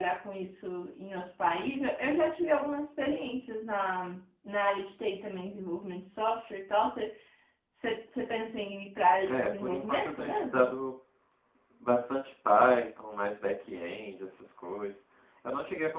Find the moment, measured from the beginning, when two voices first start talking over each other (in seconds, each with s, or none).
9.2 s